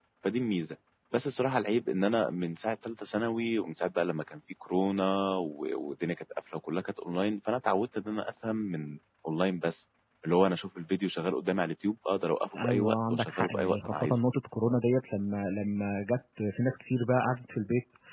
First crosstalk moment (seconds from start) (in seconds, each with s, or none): 12.5 s